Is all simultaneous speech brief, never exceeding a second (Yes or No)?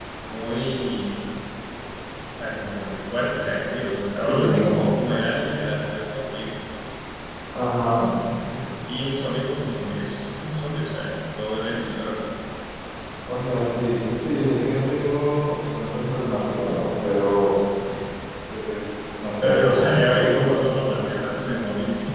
No